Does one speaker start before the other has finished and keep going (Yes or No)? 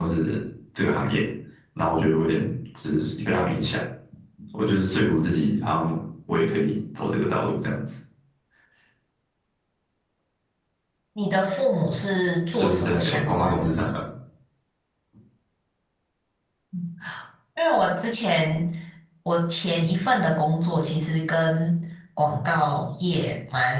Yes